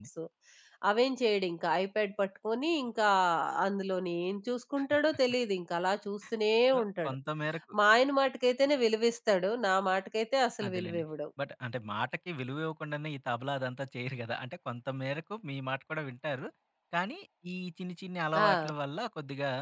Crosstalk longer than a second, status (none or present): none